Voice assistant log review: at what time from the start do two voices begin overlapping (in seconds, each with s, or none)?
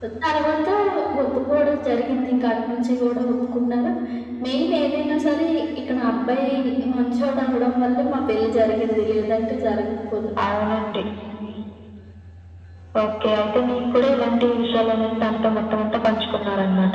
none